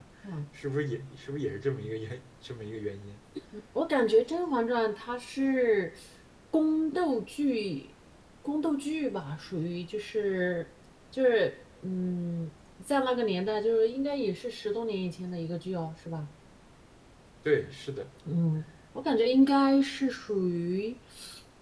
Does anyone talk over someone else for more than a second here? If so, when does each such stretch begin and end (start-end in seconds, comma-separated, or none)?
none